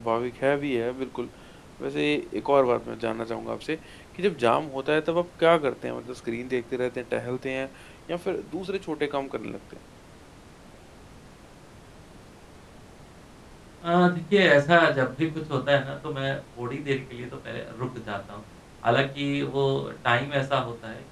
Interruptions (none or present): none